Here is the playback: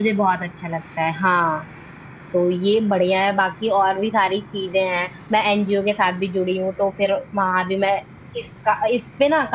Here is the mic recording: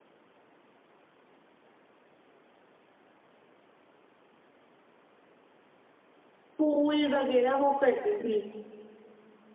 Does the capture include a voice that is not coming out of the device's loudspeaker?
Yes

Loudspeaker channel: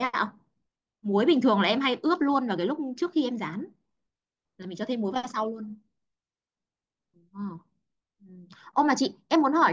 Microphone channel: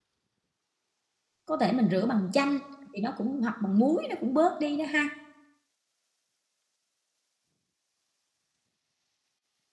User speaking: Yes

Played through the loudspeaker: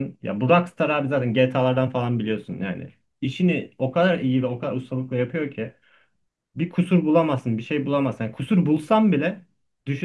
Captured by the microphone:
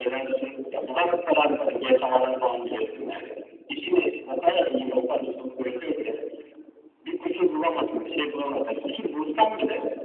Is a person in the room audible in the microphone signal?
No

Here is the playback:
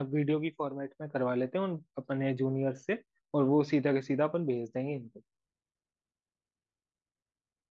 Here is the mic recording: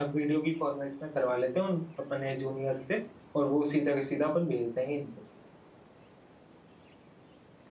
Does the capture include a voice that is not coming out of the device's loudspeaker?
No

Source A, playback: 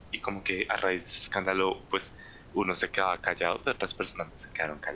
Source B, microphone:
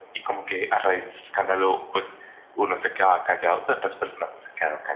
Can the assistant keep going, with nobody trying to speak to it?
Yes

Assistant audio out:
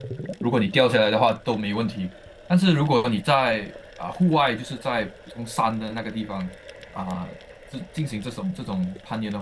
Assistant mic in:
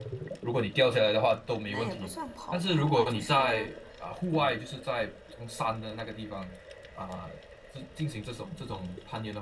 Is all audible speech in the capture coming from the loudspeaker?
No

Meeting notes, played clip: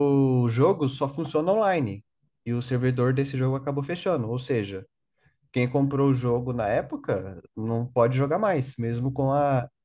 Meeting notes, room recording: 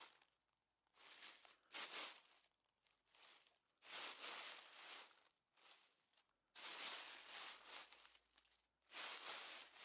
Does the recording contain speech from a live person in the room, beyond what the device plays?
No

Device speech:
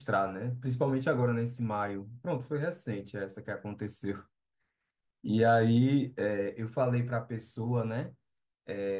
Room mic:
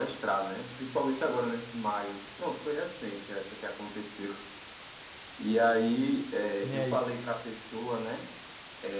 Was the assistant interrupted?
Yes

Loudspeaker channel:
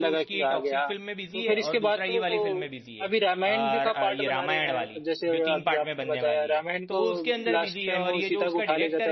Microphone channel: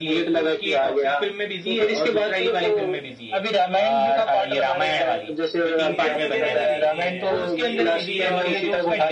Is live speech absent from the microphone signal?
No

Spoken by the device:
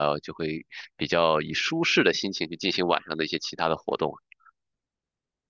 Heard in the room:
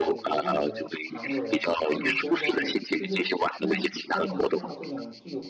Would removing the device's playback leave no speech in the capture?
No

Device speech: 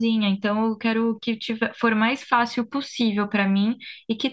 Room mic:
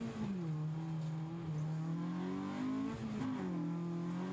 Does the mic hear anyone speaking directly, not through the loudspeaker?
No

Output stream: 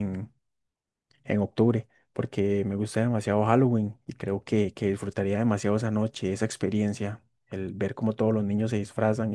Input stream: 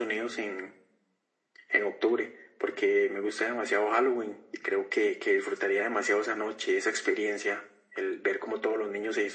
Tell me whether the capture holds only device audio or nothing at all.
Yes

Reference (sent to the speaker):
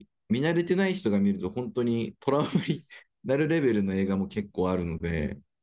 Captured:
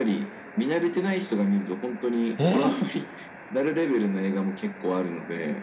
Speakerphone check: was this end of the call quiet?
No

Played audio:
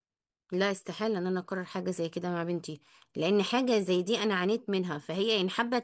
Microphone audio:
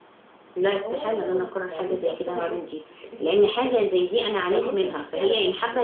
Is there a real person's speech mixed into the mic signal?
Yes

